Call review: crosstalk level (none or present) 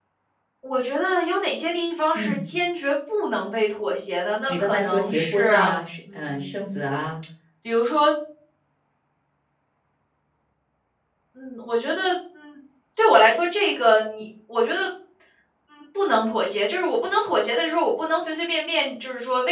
present